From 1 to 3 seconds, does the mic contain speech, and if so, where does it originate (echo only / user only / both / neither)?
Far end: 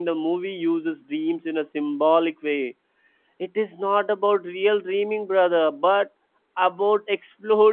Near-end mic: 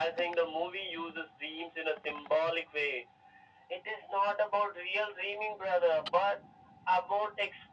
echo only